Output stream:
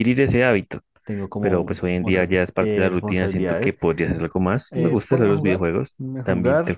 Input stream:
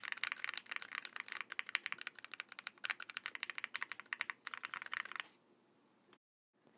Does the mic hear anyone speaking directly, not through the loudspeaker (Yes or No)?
No